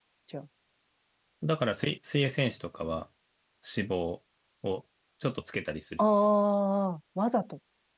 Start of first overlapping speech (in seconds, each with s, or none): none